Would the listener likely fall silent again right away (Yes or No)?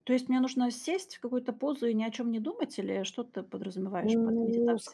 No